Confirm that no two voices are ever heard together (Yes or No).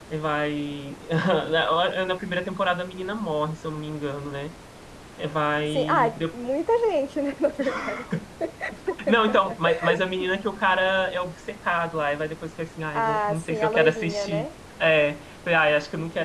No